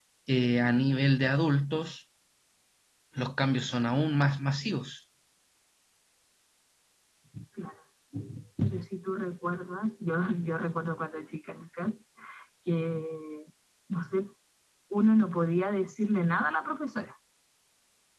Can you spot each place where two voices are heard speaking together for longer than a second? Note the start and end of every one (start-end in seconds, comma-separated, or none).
none